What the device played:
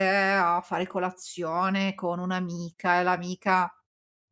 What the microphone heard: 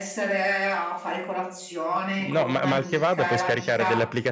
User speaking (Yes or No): Yes